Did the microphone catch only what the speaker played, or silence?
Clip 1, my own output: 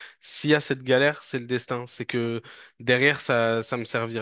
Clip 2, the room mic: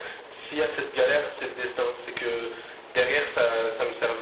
Yes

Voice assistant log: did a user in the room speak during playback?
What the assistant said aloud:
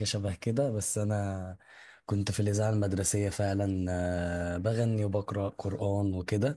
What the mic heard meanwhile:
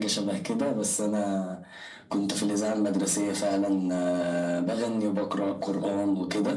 No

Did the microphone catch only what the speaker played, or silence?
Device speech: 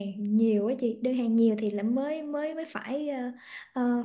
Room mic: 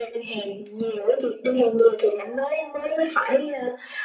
Yes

